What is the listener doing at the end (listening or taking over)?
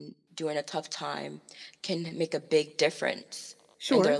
taking over